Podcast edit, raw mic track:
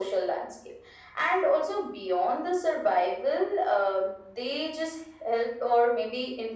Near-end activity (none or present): none